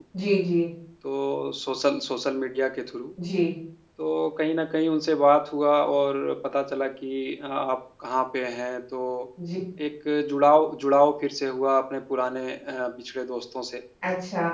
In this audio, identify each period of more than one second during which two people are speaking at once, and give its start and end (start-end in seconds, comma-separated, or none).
none